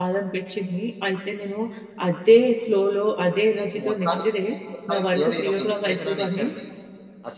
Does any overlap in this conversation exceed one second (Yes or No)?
Yes